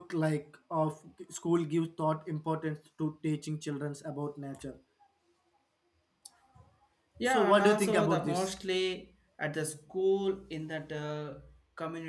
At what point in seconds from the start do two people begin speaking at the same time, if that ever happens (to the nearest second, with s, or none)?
7 s